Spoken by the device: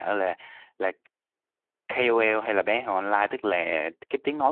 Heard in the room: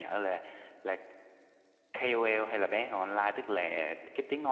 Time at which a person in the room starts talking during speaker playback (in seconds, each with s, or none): none